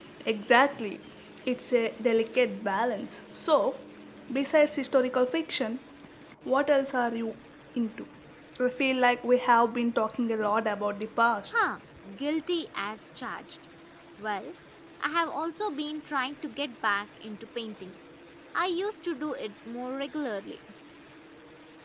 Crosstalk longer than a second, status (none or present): none